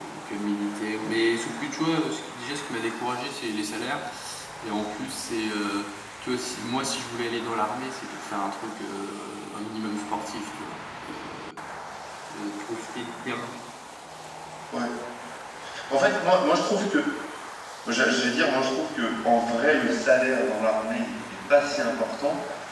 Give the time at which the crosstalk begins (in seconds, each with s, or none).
none